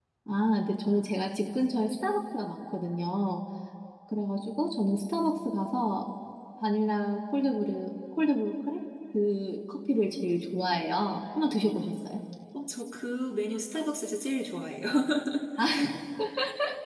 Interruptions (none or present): none